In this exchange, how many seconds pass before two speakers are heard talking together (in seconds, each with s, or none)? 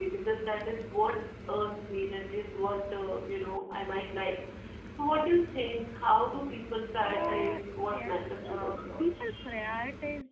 7.0 s